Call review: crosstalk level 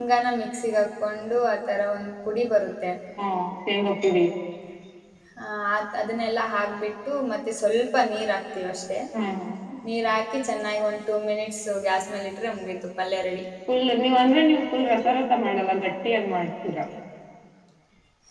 none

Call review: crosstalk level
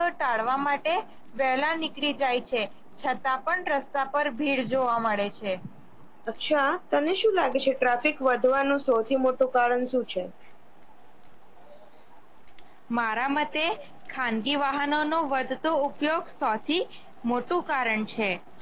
none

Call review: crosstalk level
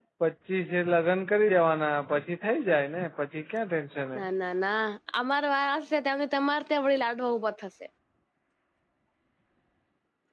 none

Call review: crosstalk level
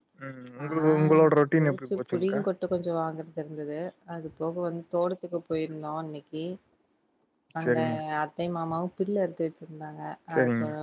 present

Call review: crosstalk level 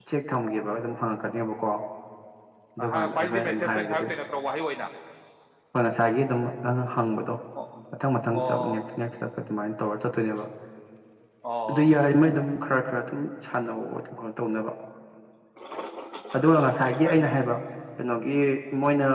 present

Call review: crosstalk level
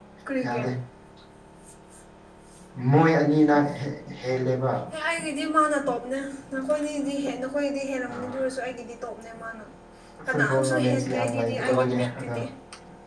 present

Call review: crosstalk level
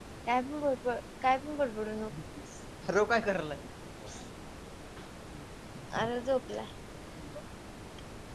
none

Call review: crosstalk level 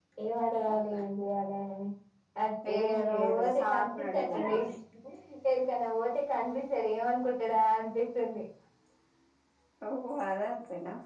present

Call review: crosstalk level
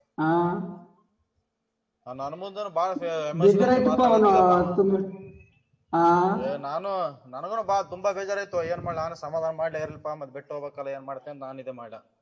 present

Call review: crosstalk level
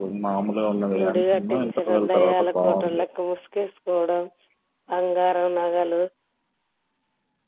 present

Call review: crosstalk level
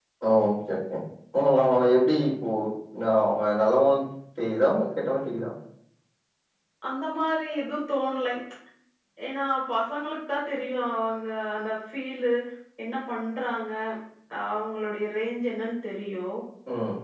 none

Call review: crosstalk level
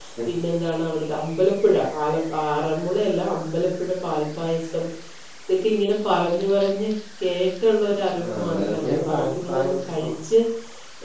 present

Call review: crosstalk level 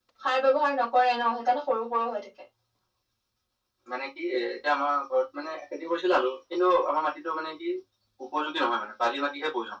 none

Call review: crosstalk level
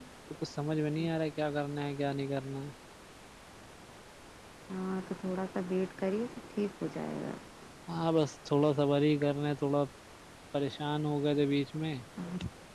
none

